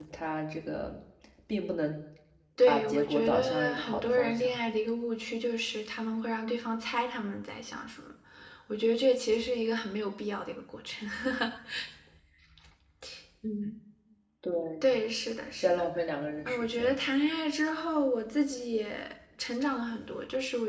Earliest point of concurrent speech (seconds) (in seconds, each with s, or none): 2.7 s